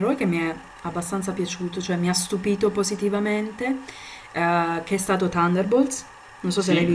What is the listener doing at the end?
taking over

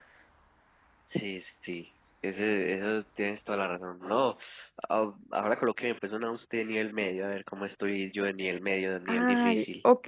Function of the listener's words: taking over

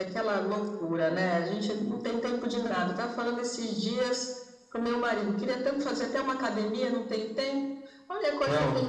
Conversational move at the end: listening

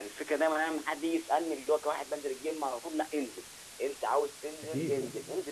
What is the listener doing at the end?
listening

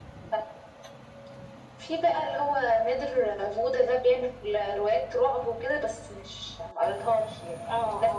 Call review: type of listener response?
taking over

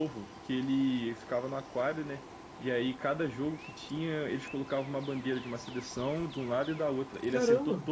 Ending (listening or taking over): listening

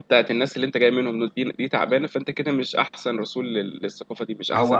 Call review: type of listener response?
taking over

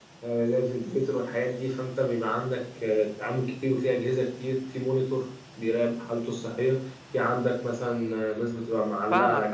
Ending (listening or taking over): taking over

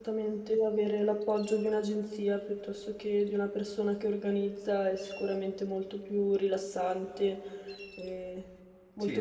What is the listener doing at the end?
taking over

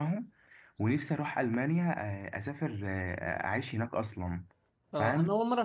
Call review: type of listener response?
taking over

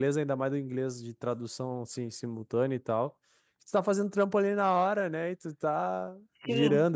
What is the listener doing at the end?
listening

